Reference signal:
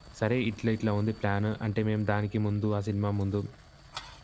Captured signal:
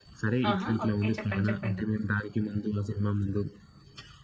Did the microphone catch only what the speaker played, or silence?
No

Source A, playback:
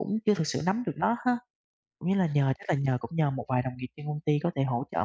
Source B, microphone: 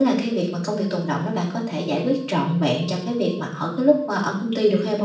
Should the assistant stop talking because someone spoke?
Yes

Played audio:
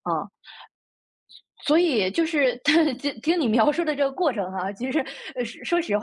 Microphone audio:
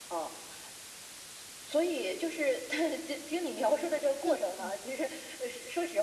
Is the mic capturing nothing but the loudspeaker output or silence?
No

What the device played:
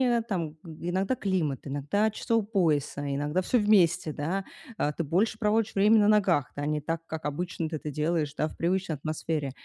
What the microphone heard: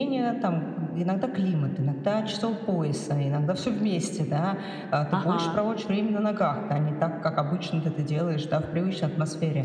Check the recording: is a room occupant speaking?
Yes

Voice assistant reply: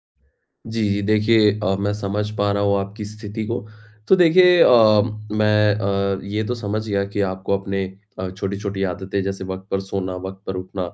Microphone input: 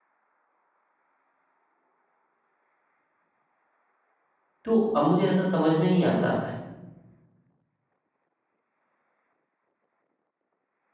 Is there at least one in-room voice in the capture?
Yes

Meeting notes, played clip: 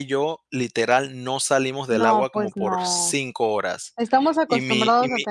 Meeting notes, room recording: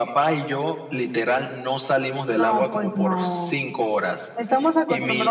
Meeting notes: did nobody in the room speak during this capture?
Yes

